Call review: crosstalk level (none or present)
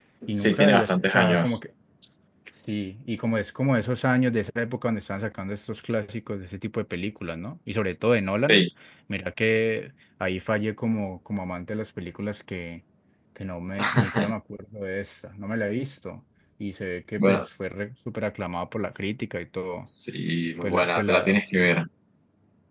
present